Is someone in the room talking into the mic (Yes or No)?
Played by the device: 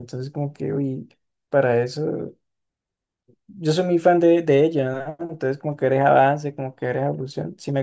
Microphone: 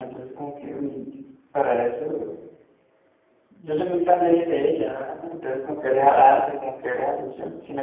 No